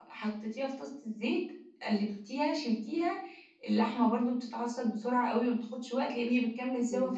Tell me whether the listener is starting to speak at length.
Yes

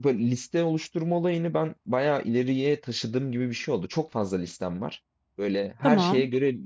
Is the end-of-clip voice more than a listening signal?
No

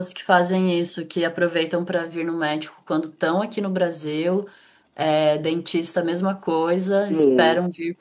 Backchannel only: Yes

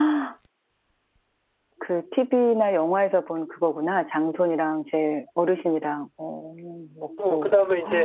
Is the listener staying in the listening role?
No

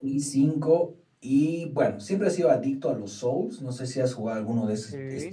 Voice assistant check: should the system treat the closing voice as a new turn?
Yes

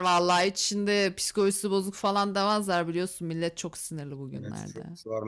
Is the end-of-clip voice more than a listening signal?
Yes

